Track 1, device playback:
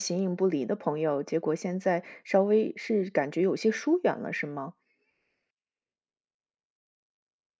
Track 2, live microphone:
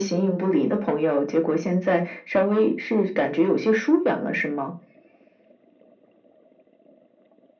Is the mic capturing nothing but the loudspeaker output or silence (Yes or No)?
Yes